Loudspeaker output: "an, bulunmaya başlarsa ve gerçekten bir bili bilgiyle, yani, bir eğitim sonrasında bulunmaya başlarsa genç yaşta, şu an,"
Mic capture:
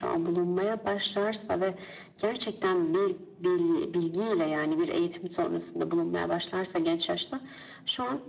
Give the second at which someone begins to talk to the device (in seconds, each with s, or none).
none